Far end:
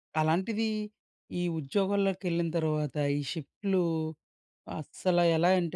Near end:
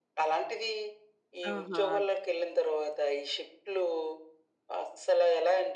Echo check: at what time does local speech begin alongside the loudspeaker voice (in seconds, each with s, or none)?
1.5 s